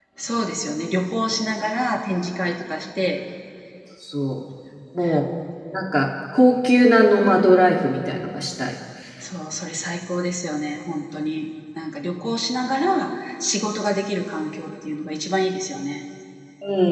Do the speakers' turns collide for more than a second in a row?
No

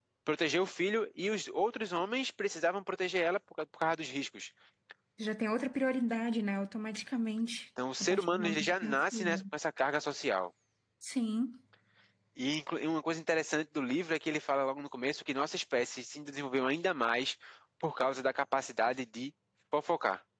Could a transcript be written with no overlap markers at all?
No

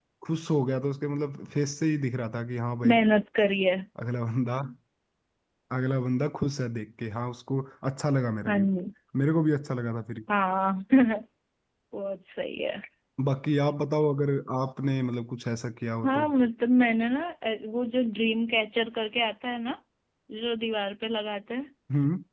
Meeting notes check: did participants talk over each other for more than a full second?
No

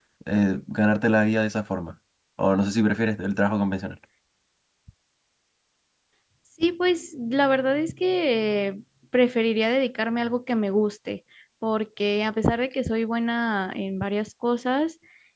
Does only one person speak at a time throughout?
Yes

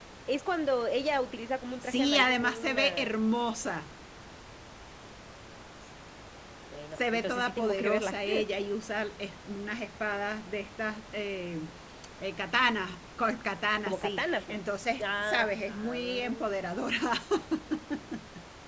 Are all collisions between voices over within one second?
No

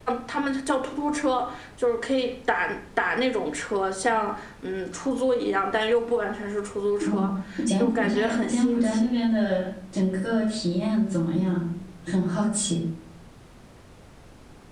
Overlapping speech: Yes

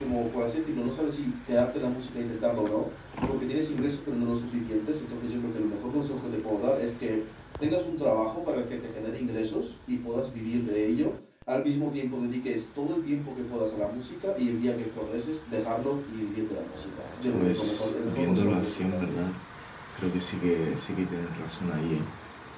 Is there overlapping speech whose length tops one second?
Yes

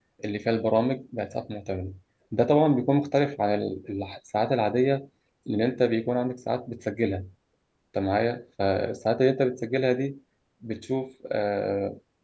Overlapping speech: No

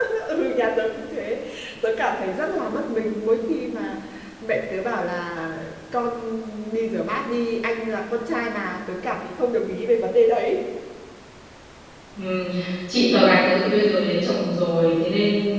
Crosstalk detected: No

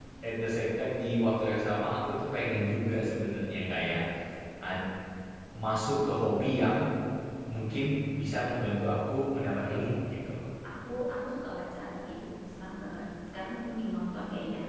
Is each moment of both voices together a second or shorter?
Yes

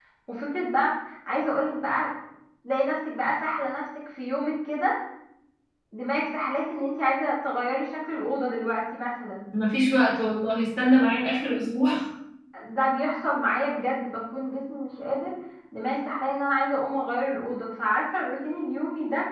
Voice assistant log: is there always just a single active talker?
Yes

